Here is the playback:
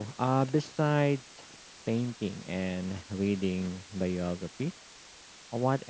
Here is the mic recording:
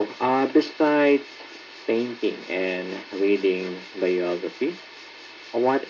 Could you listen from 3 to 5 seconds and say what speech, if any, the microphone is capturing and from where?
echo only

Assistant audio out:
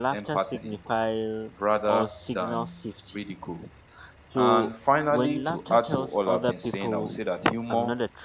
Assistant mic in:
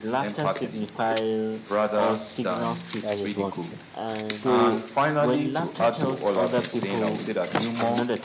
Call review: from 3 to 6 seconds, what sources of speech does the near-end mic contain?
both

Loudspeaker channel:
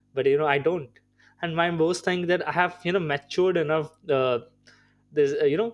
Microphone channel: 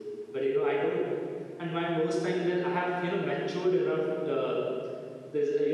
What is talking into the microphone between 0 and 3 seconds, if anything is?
echo only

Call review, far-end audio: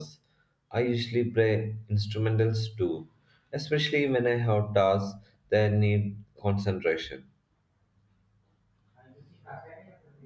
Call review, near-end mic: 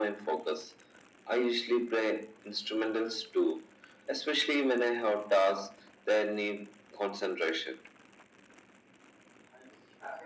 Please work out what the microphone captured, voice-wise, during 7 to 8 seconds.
echo only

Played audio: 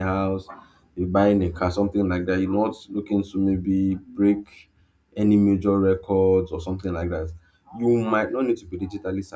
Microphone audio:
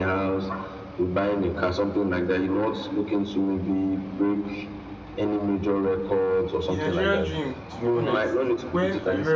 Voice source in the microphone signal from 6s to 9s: both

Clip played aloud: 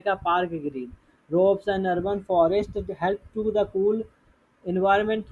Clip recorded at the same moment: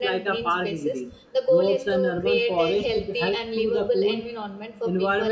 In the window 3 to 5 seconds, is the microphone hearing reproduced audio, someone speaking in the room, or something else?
both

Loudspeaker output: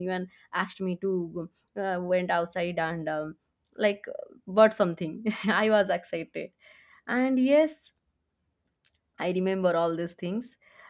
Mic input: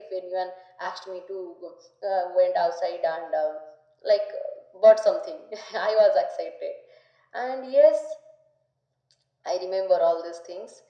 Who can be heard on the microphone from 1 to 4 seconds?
echo only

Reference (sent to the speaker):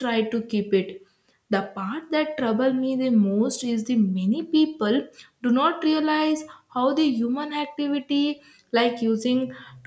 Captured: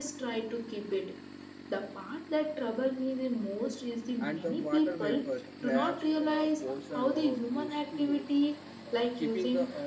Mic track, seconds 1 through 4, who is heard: echo only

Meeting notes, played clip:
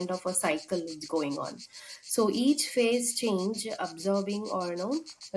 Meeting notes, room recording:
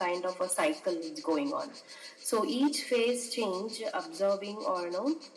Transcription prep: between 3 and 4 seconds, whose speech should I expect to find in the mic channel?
echo only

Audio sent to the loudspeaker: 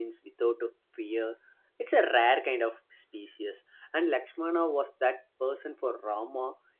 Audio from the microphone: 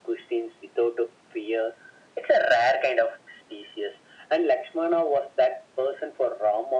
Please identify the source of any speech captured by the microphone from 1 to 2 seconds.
echo only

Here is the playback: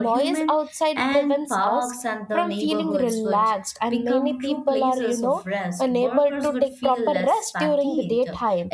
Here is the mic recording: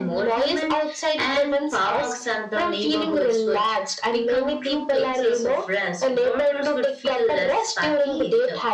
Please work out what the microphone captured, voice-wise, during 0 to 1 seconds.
echo only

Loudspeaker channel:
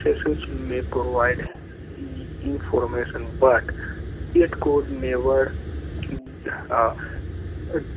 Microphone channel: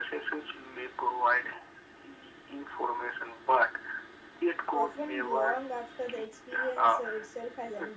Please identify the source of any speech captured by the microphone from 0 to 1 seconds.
echo only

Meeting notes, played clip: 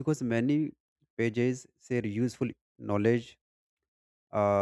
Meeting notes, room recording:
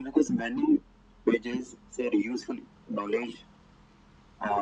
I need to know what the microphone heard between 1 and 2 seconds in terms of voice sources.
echo only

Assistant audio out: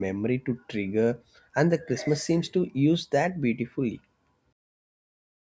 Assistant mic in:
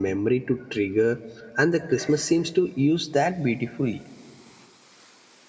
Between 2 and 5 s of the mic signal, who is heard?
echo only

